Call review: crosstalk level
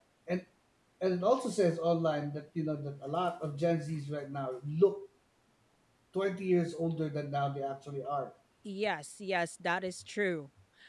none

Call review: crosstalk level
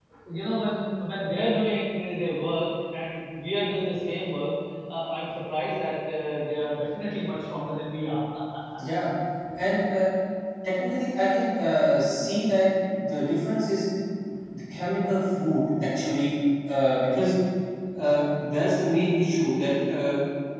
none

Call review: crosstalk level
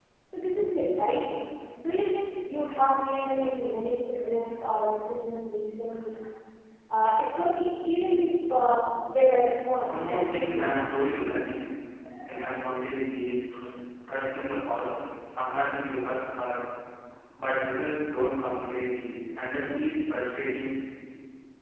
present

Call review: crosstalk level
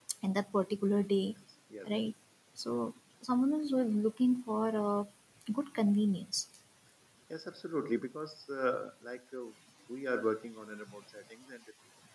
none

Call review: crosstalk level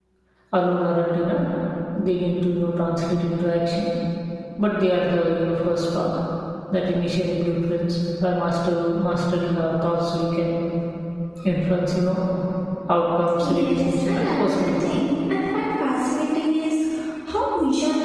present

